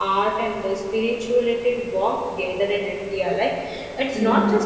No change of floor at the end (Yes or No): Yes